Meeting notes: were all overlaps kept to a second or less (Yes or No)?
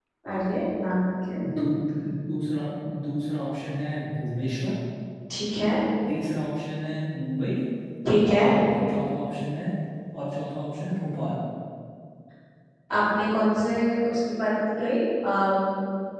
Yes